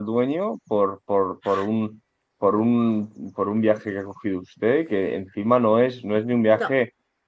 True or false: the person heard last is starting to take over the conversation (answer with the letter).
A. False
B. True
A